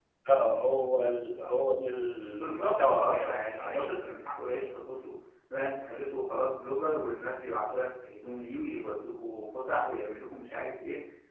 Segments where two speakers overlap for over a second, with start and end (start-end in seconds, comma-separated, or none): 2.5-4.1